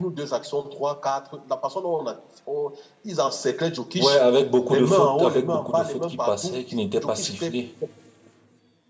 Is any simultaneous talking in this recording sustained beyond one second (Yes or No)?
Yes